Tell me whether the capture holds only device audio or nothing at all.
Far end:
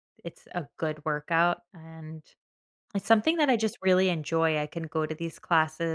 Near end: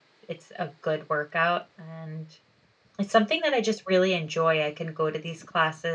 Yes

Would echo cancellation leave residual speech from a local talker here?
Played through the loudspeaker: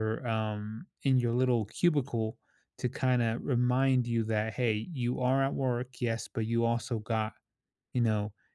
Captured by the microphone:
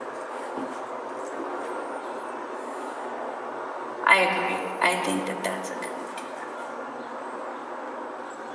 Yes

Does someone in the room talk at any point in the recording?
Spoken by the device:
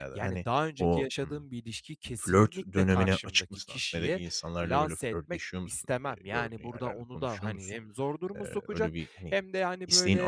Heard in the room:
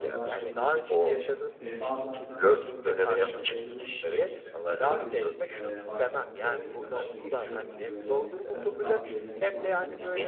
Yes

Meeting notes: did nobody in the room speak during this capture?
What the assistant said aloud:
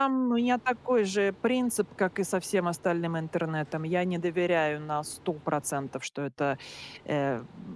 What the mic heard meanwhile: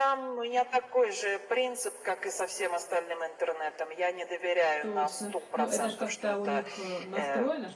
No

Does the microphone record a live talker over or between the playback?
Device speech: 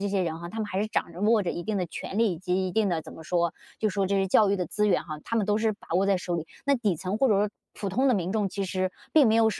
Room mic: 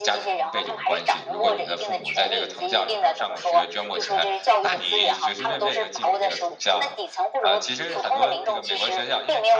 Yes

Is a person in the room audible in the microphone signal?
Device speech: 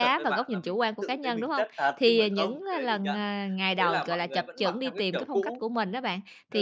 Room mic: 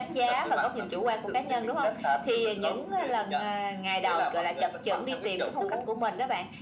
No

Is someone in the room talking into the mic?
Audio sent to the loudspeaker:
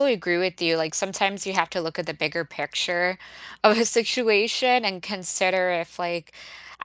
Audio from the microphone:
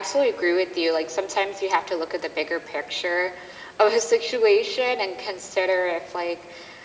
No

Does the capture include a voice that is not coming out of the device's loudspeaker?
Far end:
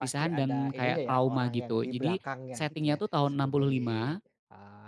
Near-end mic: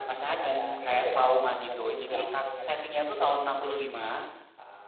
No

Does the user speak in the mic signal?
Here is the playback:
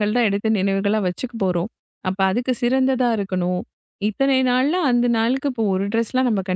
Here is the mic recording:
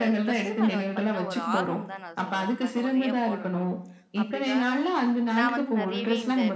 Yes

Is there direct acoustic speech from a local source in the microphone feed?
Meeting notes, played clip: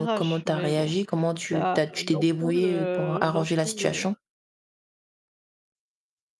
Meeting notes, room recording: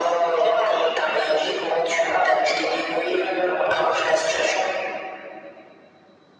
No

